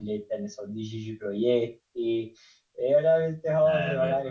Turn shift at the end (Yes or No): No